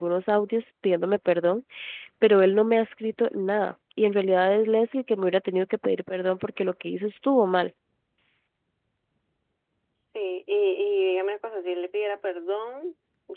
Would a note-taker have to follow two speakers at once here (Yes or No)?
No